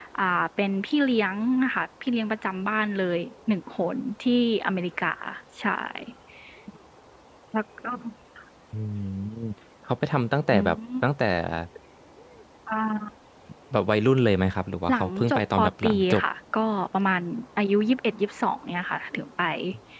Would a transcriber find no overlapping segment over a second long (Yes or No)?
No